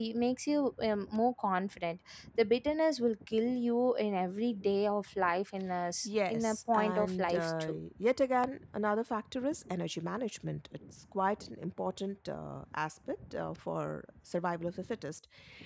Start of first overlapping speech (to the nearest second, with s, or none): 6 s